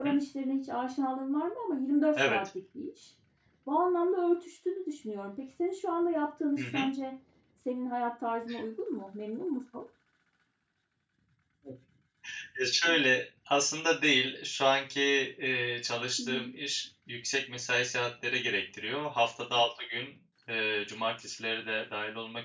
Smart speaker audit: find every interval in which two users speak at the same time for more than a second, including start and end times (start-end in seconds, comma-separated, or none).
none